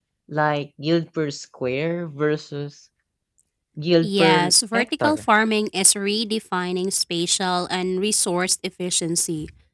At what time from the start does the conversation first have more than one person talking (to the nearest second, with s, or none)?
4 s